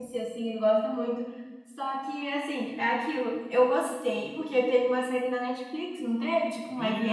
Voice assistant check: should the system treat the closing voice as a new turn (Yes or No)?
Yes